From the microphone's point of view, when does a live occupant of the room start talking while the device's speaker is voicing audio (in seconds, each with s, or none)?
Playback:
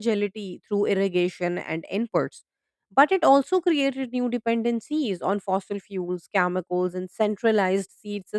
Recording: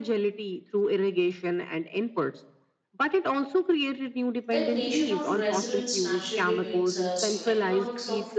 4.5 s